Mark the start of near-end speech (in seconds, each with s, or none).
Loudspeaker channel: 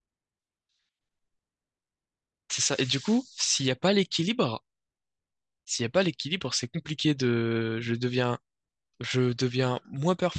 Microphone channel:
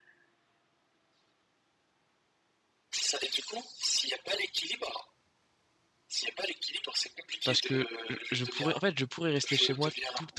7.4 s